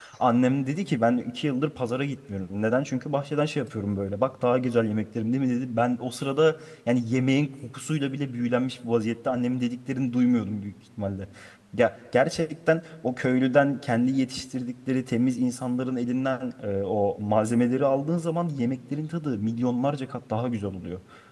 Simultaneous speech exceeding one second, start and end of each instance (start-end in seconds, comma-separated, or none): none